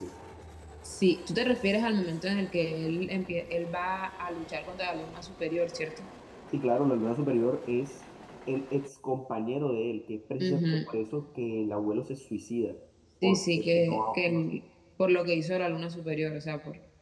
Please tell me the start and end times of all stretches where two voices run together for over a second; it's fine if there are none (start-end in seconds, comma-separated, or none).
13.2-14.4